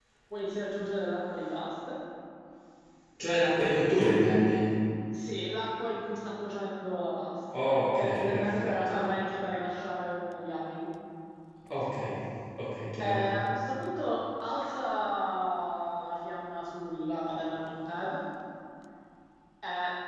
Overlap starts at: 8 s

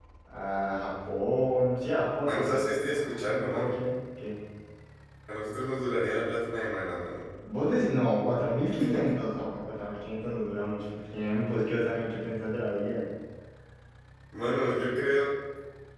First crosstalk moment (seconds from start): 2 s

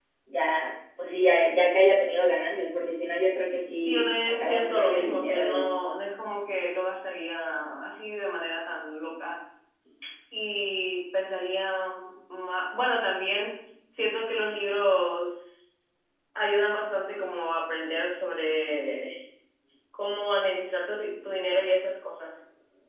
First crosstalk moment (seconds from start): 4 s

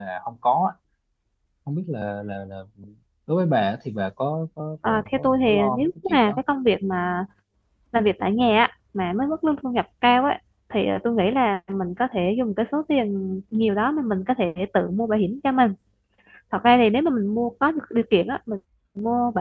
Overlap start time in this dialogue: 5 s

